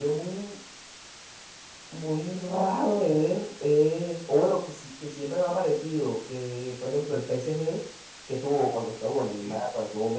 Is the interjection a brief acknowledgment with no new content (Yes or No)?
Yes